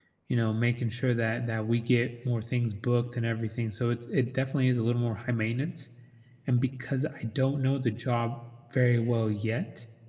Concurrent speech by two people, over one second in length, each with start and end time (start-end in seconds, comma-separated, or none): none